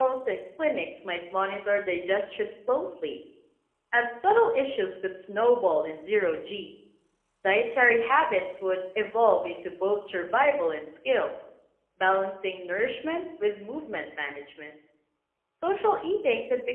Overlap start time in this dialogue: none

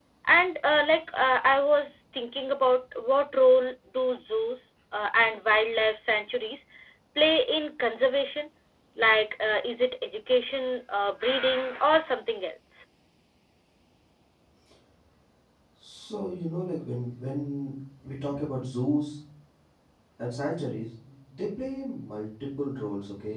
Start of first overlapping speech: none

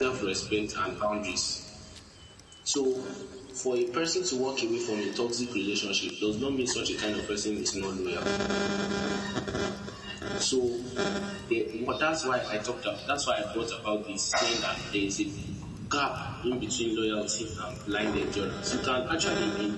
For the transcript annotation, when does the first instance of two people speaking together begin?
none

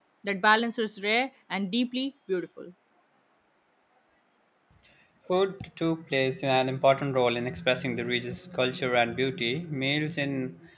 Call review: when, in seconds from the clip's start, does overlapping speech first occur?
none

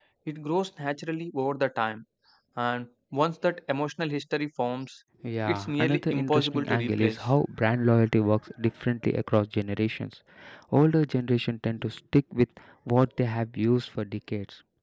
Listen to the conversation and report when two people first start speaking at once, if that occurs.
5.5 s

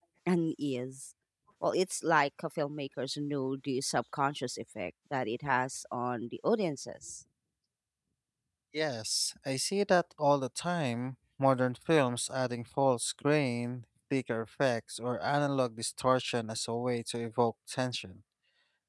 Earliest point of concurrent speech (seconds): none

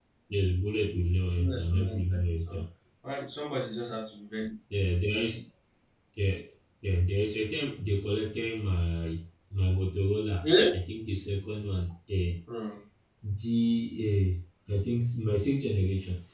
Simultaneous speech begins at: 1.4 s

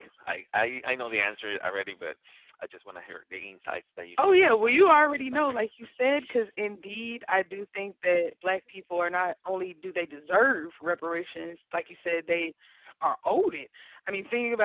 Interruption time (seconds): 4.2 s

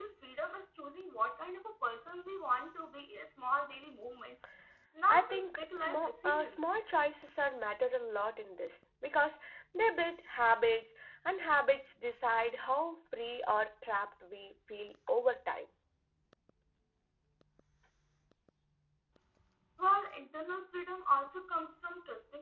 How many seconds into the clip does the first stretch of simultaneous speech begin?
5.1 s

